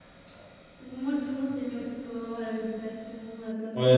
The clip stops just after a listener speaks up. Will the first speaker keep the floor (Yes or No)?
No